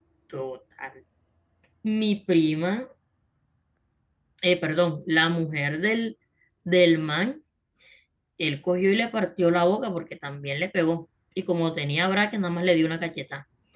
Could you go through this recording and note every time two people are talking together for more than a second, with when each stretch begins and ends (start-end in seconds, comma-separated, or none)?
none